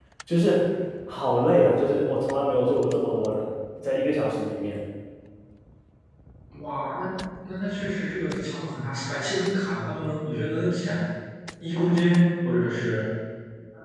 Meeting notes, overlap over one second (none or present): none